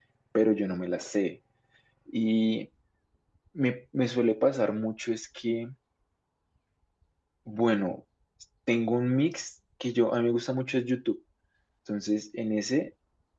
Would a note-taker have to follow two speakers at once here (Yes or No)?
No